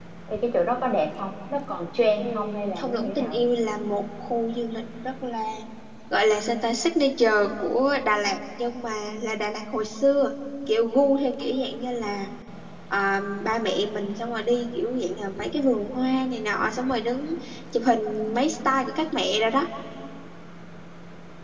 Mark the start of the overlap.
2.2 s

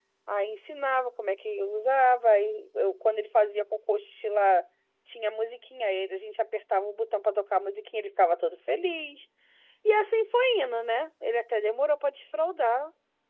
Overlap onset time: none

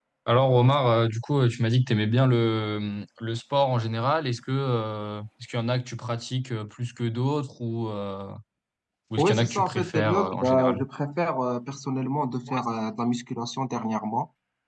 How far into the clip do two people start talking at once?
9.2 s

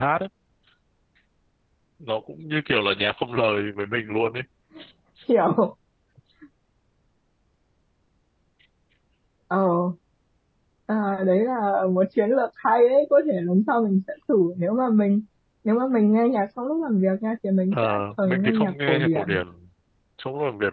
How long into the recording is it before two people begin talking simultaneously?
17.7 s

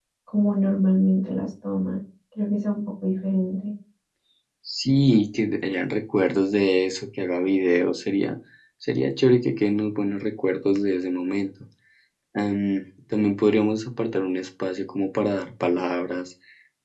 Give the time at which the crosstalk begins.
none

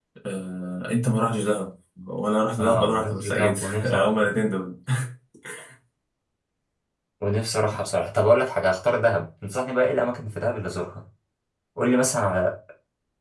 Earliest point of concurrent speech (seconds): 2.6 s

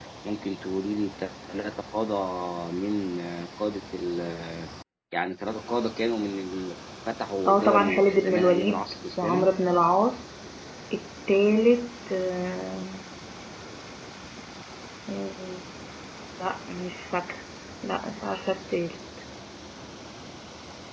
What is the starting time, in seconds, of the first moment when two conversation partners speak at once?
7.5 s

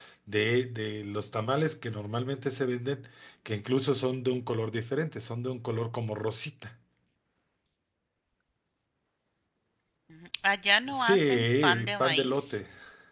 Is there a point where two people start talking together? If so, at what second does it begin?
10.9 s

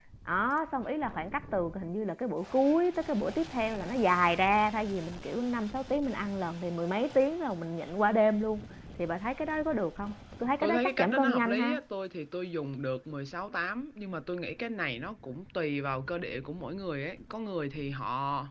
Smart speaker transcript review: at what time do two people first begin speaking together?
10.6 s

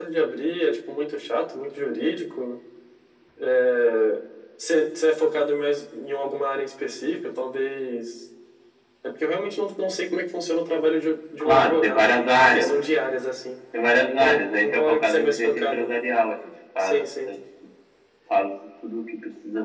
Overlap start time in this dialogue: 11.4 s

